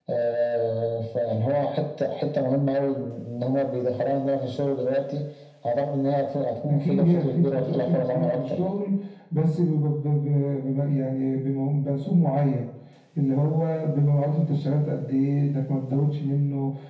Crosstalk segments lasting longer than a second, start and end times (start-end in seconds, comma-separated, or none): 6.7-8.7